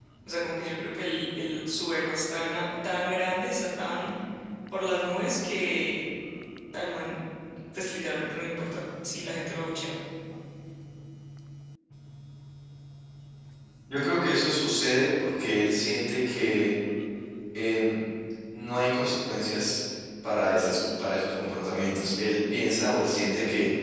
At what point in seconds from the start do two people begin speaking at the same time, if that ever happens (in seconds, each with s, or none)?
none